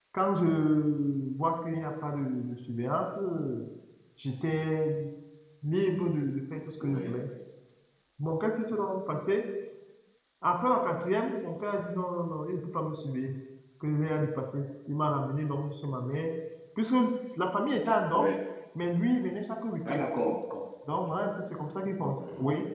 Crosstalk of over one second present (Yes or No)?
No